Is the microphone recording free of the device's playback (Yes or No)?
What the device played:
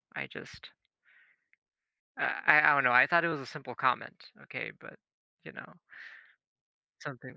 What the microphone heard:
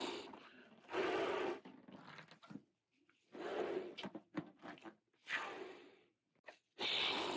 Yes